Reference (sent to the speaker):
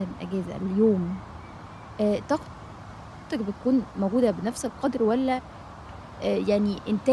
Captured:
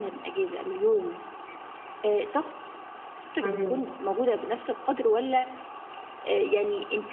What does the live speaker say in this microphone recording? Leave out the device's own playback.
اهم.

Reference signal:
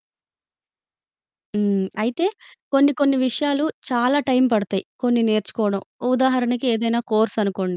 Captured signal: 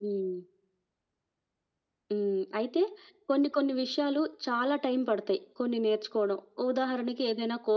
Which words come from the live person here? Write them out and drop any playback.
none

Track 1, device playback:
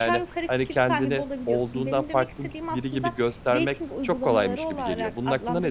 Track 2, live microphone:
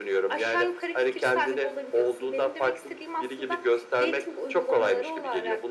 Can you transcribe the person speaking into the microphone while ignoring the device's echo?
none

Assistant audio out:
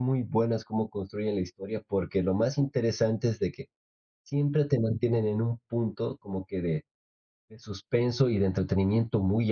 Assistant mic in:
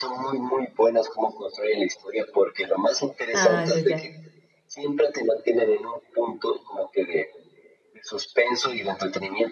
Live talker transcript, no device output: Ah, ya, ya.

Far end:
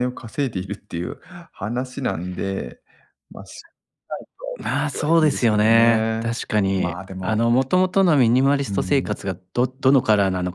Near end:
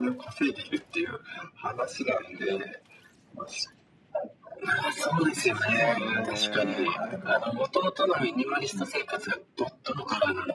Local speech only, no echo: ああ、確かにね。なんか、

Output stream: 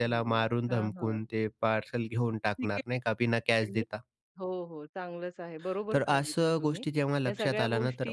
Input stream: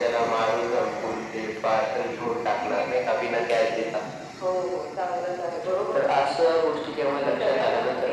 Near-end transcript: none

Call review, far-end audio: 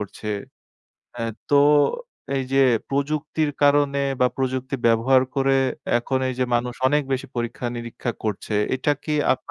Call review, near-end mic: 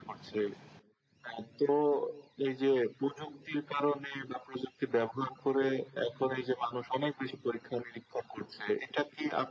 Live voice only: none

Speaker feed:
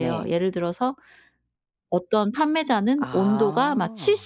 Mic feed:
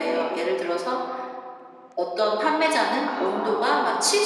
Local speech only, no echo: none

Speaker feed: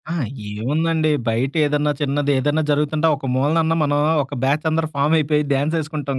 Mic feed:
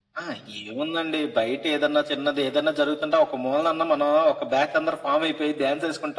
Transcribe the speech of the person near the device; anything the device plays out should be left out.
none

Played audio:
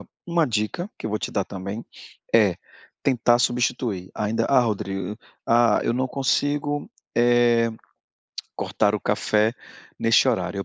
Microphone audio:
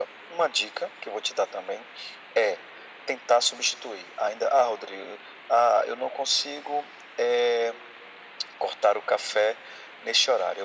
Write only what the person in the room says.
none

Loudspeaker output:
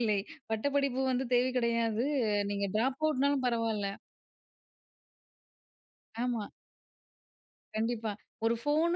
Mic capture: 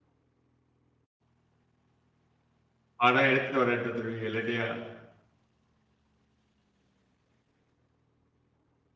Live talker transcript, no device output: பணம் எடுத்துட்டு வரேன்ட்டு வந்துருவீங்க இல்லலையா?

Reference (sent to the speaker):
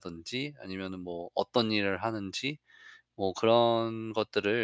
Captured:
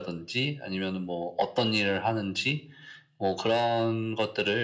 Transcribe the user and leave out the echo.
none

